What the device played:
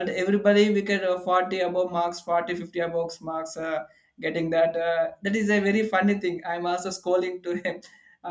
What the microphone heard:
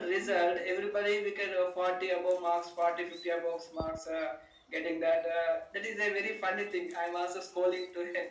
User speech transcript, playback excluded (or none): none